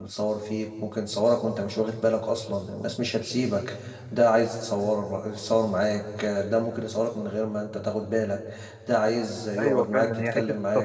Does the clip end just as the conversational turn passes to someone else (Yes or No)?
Yes